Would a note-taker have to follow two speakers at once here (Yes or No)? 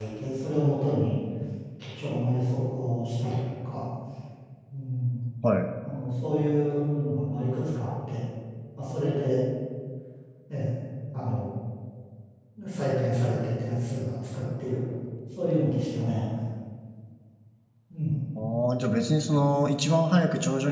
No